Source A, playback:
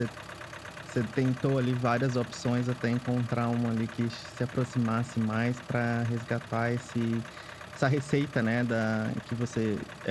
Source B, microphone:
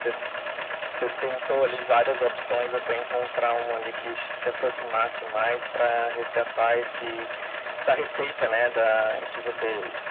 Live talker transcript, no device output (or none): none